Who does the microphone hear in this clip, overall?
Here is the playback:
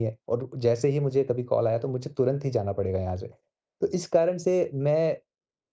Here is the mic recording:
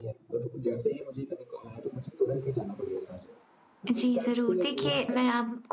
both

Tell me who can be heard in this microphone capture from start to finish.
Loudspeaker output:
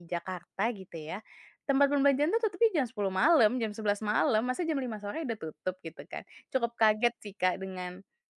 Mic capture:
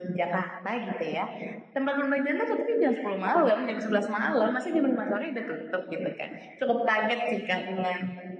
echo only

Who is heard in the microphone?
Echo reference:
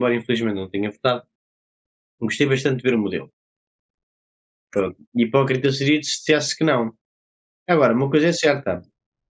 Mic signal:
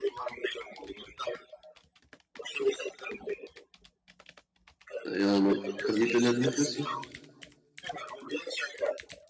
both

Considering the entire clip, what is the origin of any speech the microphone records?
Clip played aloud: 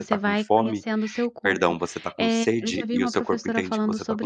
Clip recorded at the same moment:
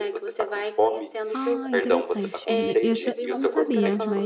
both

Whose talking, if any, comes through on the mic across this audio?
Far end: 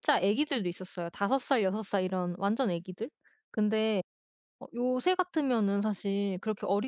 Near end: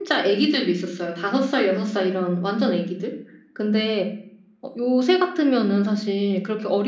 echo only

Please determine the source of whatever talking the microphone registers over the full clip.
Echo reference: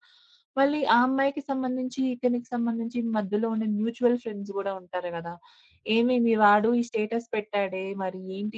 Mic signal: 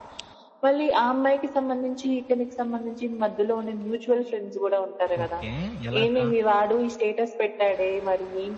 both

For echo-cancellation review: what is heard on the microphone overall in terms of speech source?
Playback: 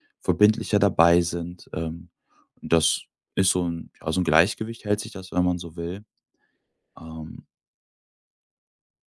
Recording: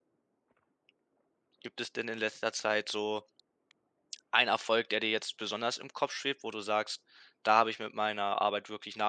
user only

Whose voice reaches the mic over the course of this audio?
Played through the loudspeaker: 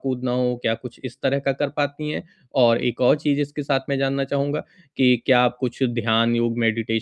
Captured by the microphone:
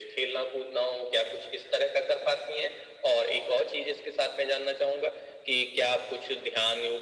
echo only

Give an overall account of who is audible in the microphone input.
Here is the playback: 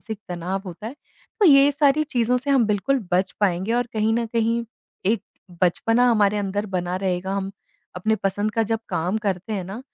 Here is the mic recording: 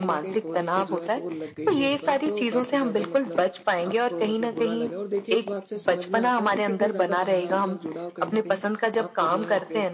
both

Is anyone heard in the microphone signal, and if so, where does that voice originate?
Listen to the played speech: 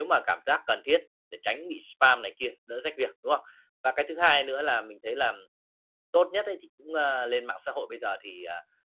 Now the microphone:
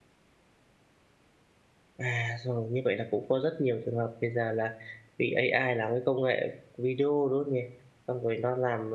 user only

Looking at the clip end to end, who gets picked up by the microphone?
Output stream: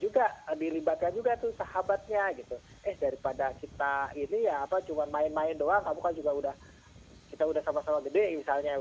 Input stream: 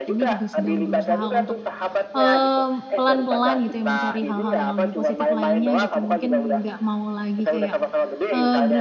both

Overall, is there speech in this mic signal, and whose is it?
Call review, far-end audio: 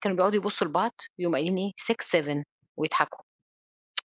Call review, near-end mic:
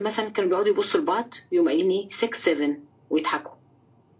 echo only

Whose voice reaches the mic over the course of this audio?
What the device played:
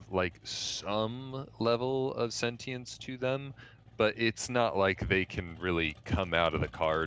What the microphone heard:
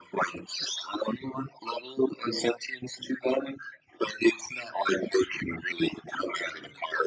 echo only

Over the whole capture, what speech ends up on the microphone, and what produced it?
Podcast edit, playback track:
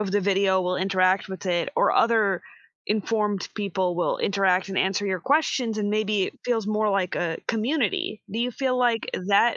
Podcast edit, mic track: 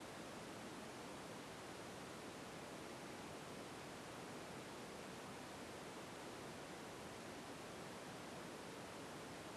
neither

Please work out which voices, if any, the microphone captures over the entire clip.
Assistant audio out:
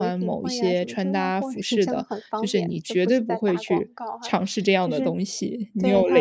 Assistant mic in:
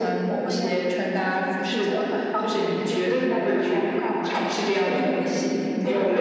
echo only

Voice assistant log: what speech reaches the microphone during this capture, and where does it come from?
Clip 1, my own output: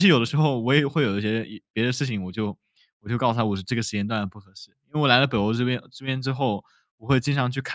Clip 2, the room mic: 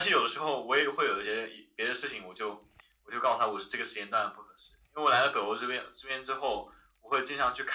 echo only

